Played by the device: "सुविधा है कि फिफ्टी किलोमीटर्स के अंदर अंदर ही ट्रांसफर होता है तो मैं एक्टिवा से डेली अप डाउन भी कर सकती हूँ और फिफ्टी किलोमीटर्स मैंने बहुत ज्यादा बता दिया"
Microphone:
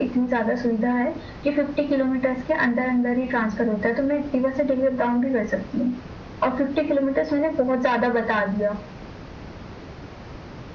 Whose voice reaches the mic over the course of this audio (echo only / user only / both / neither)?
echo only